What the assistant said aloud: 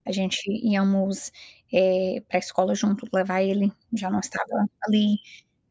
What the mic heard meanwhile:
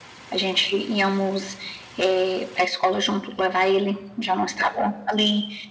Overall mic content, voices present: echo only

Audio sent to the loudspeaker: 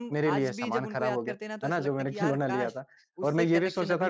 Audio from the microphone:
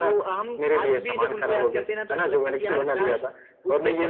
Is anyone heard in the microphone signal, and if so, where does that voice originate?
echo only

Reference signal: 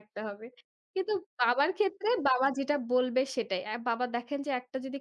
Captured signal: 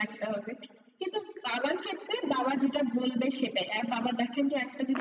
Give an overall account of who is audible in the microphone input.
echo only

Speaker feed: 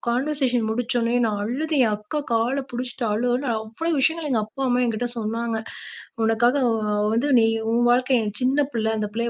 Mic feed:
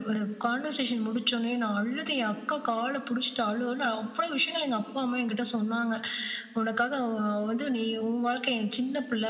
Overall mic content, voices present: echo only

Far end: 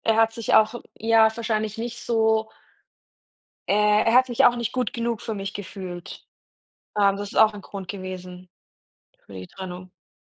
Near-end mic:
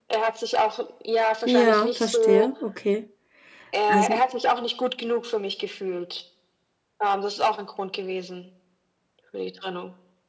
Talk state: both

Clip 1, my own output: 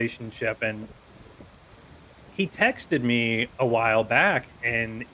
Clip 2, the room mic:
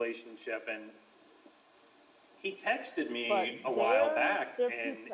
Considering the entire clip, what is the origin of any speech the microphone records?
both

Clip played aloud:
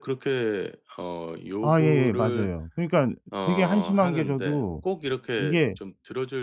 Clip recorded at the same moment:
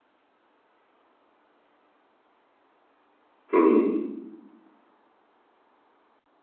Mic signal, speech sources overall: user only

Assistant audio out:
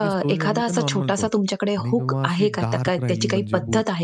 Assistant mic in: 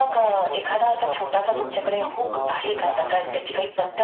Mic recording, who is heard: both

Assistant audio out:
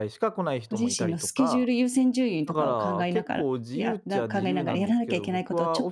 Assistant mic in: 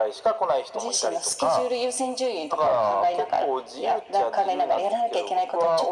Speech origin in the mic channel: echo only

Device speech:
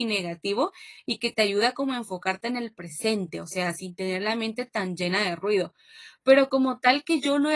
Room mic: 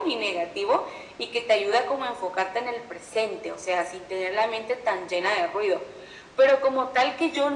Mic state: echo only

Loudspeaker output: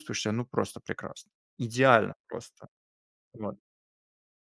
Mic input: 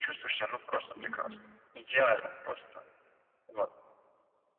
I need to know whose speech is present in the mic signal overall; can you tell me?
both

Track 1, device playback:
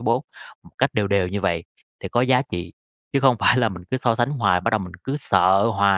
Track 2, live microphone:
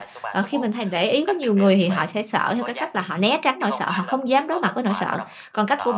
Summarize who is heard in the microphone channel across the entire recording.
both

